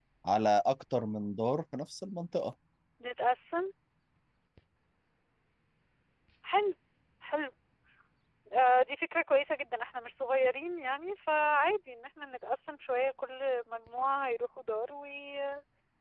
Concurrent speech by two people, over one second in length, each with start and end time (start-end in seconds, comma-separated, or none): none